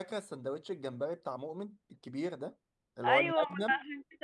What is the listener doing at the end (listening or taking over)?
taking over